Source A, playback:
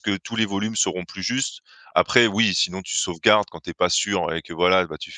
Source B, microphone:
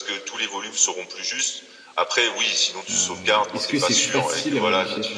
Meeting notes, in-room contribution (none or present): present